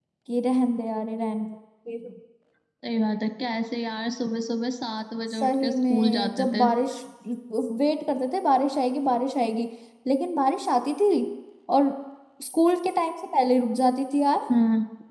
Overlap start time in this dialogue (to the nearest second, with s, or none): 5 s